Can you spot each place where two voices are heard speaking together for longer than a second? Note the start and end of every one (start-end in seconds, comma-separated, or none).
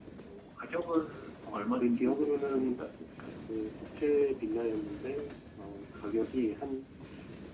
1.5-2.8